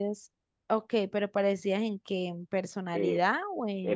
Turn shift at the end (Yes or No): Yes